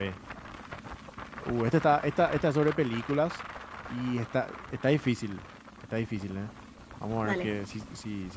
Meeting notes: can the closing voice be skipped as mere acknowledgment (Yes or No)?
Yes